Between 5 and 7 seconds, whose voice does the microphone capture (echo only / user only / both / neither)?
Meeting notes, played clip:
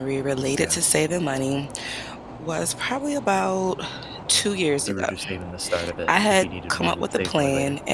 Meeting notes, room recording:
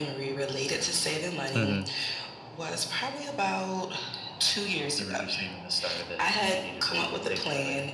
echo only